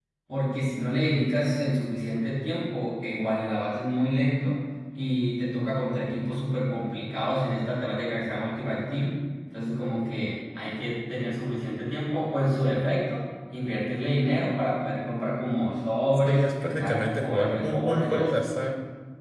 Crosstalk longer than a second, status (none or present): present